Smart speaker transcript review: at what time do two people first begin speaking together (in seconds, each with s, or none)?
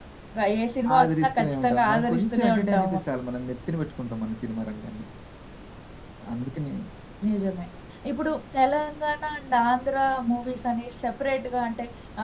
1.0 s